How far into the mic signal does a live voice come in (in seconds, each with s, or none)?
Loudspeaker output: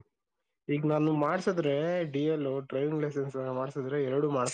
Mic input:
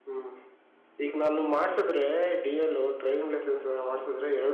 none